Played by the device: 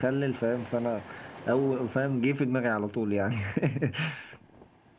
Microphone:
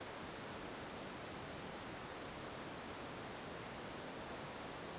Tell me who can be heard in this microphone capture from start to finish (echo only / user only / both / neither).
neither